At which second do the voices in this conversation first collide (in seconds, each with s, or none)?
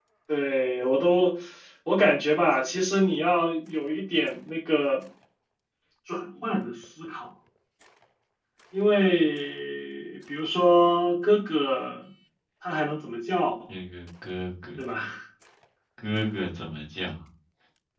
none